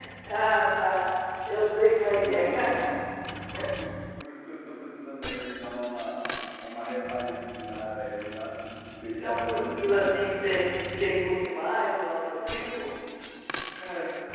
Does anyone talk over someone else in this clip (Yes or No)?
Yes